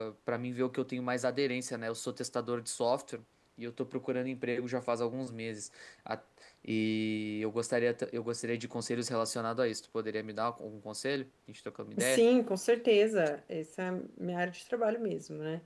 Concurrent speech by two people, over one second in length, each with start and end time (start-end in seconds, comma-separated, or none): none